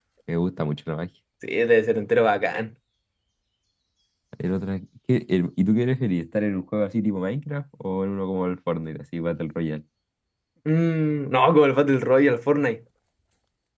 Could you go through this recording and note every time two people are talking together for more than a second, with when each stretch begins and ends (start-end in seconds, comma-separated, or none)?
none